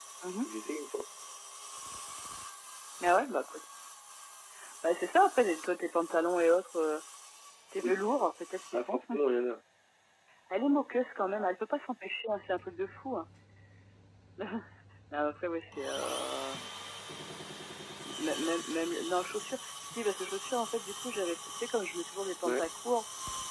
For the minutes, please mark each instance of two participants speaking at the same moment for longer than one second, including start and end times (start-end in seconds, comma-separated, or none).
none